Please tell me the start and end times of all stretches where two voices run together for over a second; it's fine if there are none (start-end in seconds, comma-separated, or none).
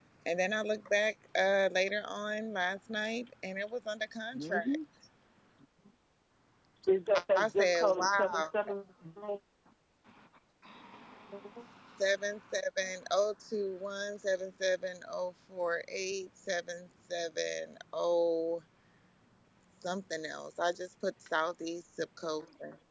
7.2-8.4